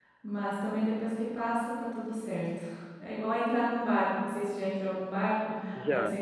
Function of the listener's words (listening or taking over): listening